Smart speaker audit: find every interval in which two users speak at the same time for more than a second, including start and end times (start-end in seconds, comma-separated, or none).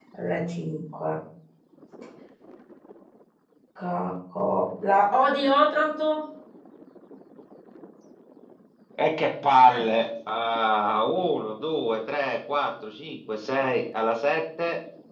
none